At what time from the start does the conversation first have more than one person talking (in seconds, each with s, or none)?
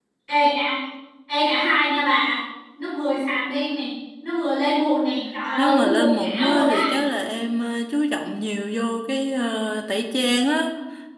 5.6 s